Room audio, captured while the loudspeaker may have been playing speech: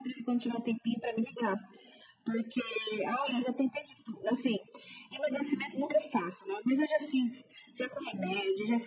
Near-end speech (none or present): none